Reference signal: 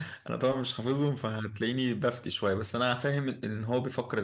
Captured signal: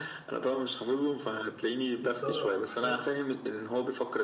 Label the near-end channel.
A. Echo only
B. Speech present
B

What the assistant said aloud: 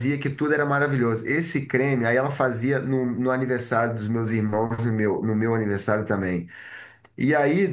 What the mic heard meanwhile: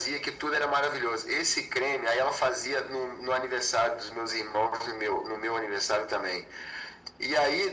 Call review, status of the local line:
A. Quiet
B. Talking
A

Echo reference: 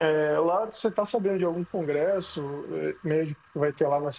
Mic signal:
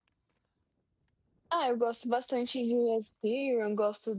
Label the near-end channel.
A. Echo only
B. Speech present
B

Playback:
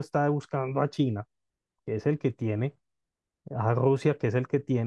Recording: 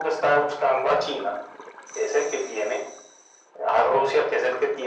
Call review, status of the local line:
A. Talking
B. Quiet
B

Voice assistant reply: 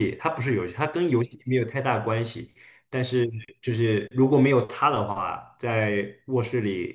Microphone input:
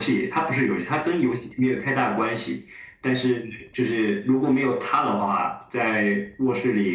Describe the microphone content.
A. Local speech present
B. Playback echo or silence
B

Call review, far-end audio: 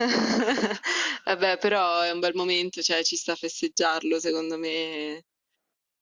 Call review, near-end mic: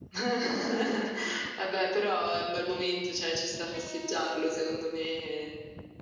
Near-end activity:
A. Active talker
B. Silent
B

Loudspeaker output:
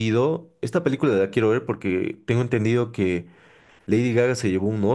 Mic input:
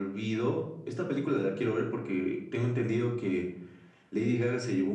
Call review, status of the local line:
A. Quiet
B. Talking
A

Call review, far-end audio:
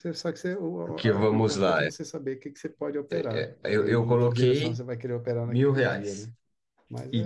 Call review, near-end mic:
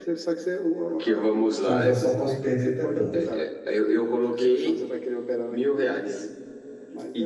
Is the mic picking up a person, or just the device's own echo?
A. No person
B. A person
B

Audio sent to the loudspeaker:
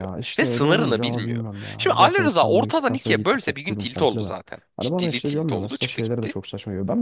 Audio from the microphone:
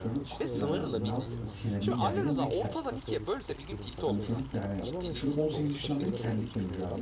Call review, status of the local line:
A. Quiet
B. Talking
B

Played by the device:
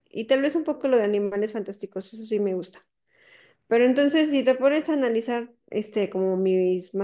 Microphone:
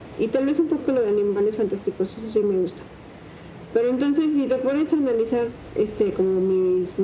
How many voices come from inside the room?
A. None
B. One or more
A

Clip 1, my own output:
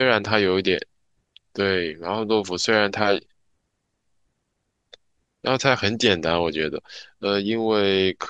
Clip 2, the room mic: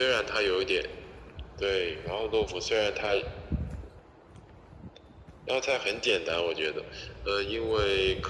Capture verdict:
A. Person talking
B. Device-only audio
B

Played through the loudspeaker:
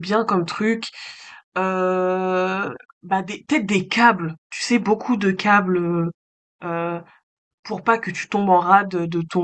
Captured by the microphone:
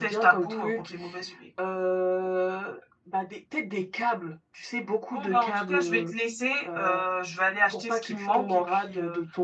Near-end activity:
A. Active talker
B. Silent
A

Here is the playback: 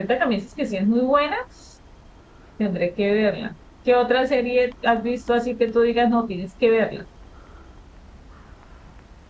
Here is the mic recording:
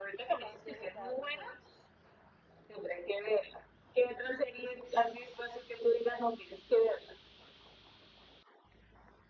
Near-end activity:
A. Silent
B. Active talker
B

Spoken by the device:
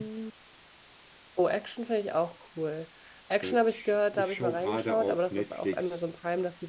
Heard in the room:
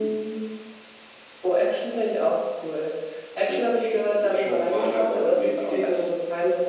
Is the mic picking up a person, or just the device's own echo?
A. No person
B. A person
A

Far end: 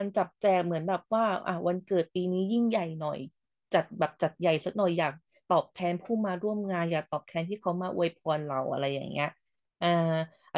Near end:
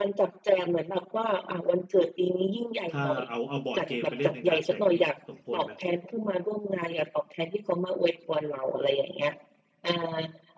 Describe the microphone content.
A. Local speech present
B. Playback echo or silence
A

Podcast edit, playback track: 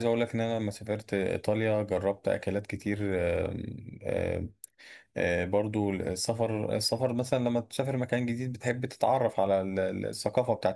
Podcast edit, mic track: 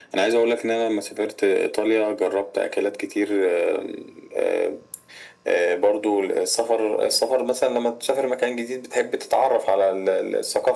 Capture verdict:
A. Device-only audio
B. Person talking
A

